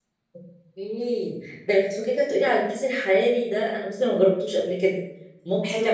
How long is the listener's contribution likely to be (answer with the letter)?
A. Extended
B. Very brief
A